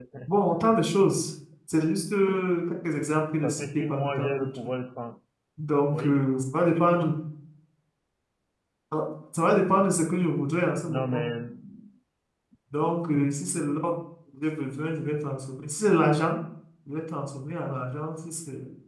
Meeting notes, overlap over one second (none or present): present